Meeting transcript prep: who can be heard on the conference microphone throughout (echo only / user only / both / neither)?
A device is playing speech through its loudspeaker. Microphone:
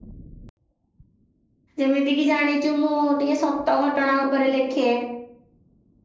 user only